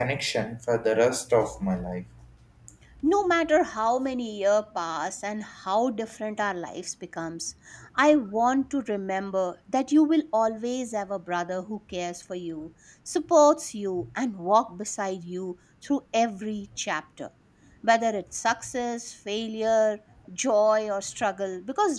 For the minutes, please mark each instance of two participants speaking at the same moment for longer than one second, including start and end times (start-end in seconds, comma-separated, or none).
none